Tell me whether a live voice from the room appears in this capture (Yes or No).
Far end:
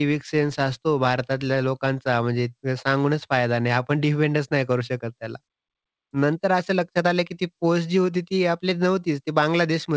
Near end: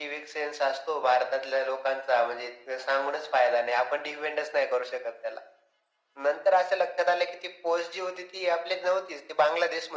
No